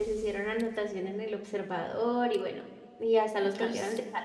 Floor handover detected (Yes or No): No